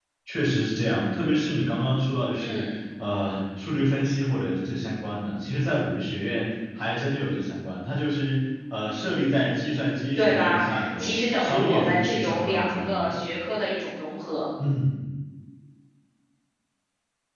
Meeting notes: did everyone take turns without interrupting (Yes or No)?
No